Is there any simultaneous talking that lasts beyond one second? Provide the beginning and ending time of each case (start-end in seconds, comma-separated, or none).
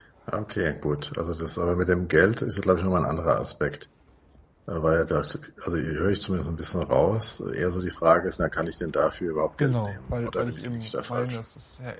9.6-11.4